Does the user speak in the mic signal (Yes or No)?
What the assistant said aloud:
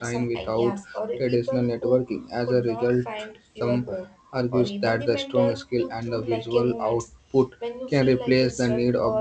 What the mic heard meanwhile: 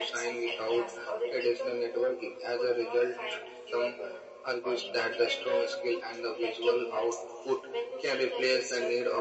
No